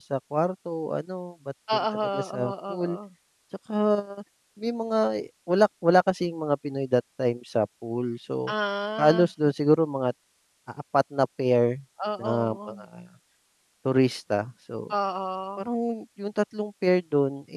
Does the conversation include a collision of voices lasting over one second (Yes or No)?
Yes